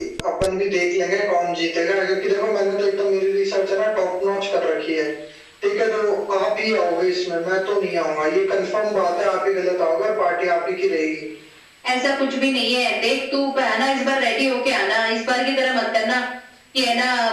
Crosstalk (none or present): none